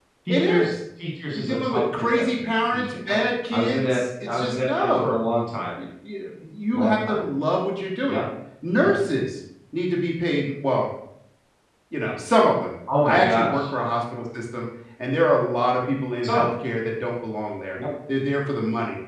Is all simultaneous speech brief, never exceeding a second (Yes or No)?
No